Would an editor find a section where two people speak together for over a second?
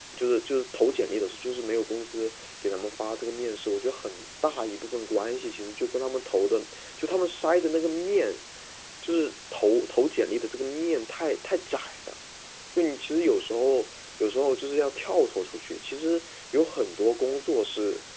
No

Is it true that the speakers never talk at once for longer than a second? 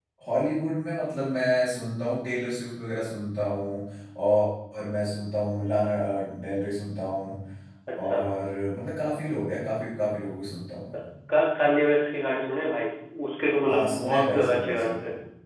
No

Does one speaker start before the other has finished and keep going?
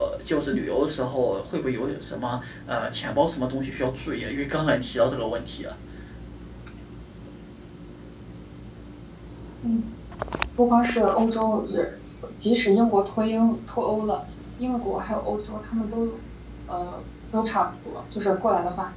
No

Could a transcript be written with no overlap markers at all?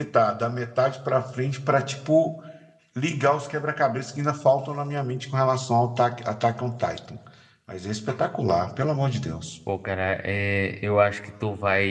Yes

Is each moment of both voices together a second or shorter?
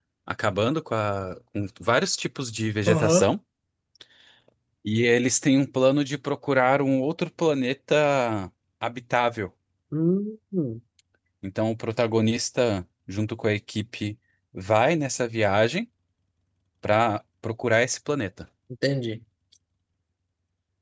Yes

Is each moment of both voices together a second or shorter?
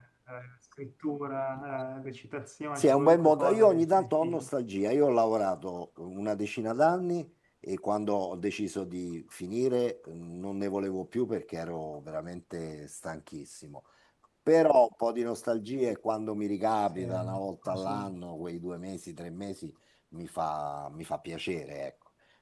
No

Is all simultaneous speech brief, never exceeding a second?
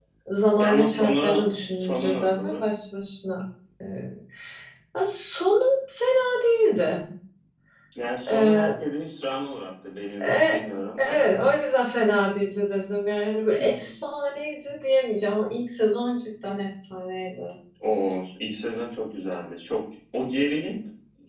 No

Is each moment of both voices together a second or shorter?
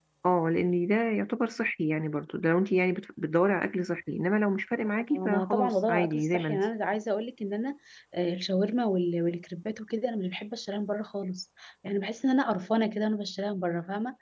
No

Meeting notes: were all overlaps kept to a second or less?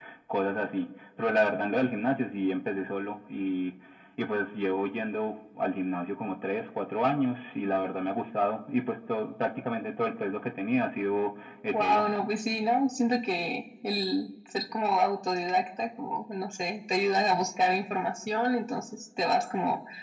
Yes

